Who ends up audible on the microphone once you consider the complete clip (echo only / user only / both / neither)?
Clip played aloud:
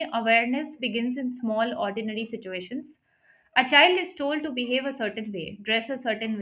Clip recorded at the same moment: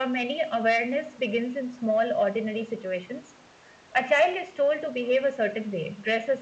echo only